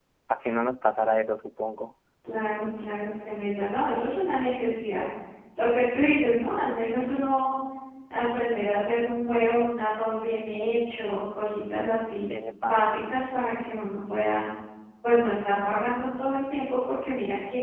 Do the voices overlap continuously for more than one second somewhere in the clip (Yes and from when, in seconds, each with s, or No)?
No